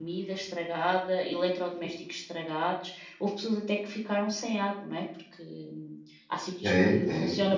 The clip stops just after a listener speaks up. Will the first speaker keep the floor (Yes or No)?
No